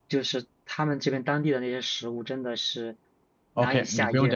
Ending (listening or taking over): taking over